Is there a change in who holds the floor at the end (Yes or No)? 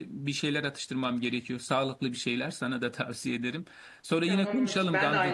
Yes